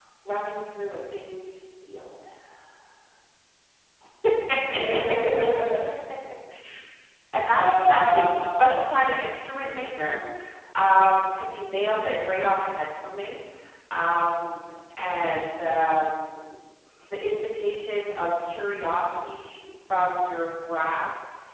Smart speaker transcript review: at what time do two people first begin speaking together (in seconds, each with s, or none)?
7.5 s